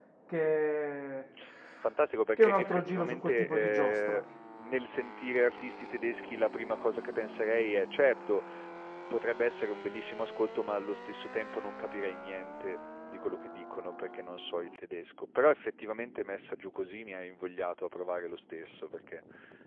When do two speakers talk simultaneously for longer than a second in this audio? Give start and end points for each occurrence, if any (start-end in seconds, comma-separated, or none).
2.4-4.2